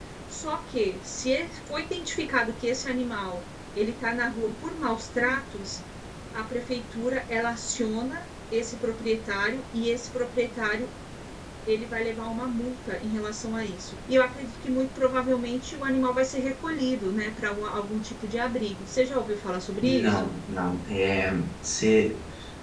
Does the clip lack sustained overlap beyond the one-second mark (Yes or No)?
Yes